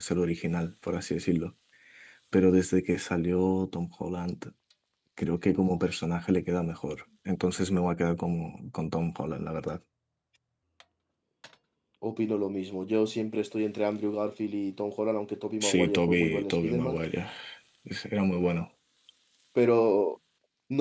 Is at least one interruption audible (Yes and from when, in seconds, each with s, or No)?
Yes, from 15.6 s